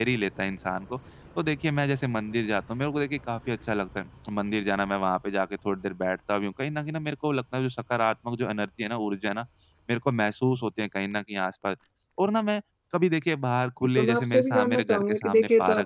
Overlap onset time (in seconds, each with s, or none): 13.8 s